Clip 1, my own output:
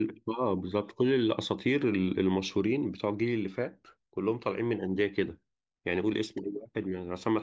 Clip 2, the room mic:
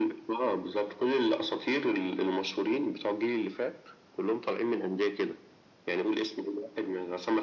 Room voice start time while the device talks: none

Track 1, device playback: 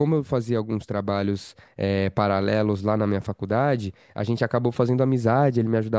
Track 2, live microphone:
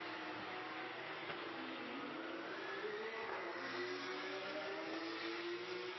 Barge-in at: none

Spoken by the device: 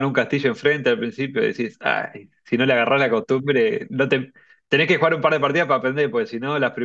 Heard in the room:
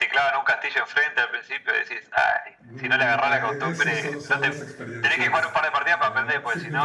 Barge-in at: 3 s

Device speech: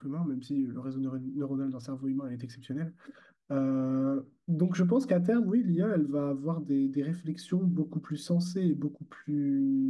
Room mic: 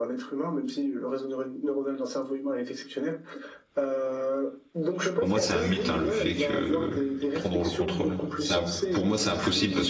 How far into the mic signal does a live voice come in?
5 s

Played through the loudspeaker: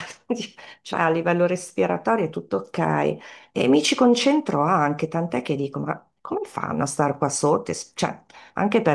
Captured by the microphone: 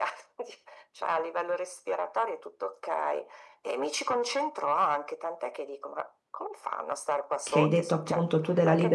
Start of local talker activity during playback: 7 s

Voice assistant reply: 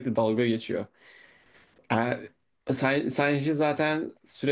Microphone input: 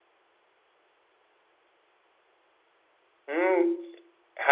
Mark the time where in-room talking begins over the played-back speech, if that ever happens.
3 s

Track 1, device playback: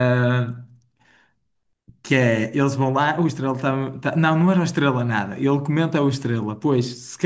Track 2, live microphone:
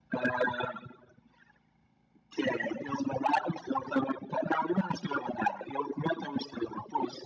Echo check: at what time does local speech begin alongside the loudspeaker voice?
none

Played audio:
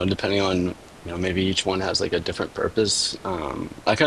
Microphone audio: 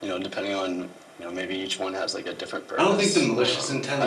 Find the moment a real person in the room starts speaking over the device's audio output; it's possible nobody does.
3 s

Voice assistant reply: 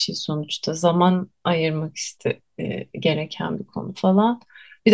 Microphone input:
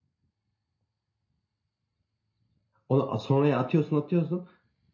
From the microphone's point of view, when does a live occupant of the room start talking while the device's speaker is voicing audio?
3 s

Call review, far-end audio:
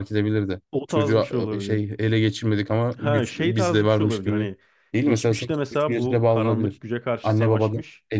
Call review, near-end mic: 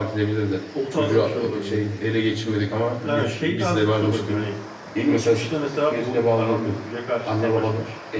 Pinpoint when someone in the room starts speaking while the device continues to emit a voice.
none

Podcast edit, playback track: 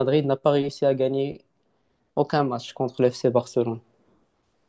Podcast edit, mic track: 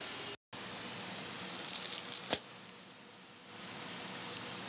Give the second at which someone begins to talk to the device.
none

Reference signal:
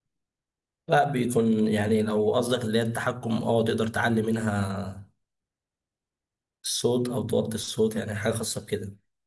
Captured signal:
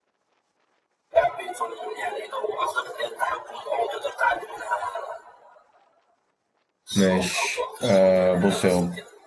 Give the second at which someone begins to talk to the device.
7 s

